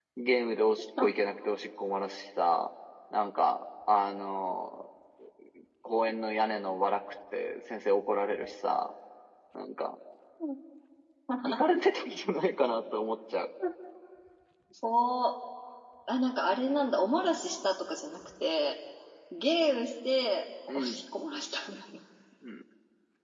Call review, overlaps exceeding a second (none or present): none